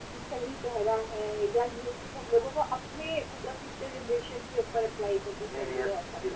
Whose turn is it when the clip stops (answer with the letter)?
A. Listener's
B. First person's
A